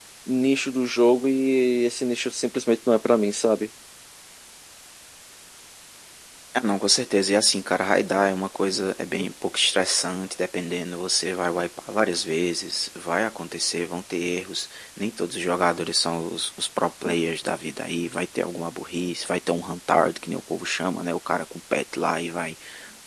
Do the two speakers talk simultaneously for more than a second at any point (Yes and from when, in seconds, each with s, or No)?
No